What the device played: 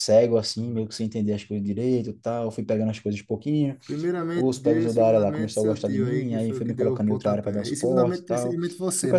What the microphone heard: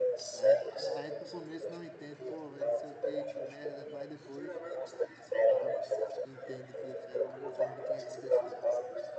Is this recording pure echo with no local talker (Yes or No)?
No